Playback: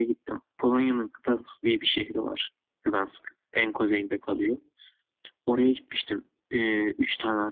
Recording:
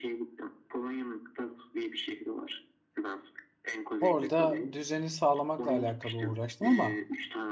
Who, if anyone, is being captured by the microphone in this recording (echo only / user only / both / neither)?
both